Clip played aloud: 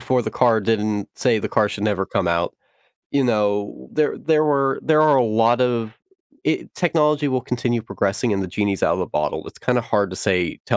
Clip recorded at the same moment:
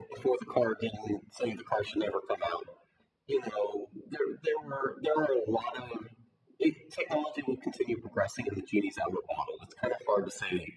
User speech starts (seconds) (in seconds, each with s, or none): none